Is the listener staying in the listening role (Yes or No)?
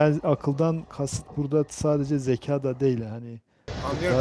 No